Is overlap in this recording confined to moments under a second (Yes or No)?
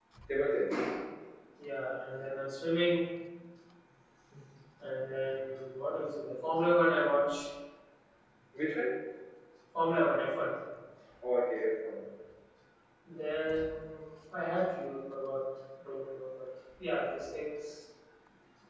Yes